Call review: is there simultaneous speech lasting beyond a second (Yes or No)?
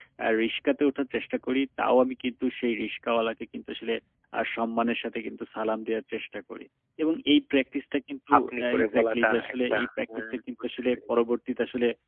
Yes